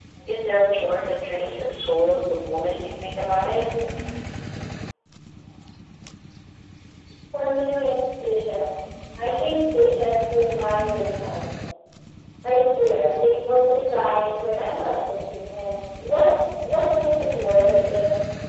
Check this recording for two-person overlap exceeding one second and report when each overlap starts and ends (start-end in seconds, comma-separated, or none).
none